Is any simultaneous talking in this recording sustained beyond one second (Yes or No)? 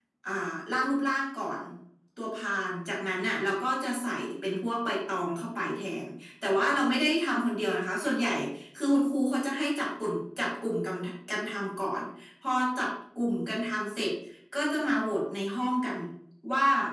No